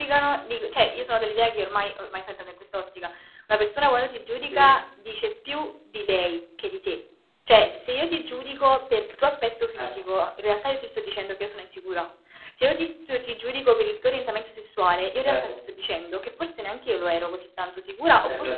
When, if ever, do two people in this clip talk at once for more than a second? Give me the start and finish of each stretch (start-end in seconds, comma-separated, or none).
none